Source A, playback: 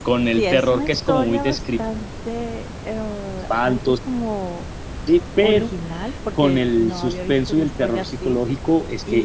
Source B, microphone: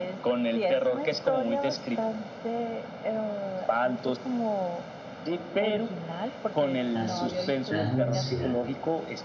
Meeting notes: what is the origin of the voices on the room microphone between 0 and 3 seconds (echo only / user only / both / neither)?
echo only